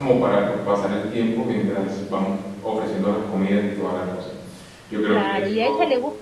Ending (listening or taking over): taking over